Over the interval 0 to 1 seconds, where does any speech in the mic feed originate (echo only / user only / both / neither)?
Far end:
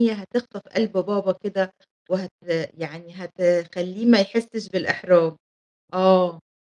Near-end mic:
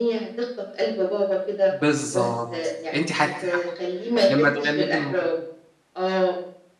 echo only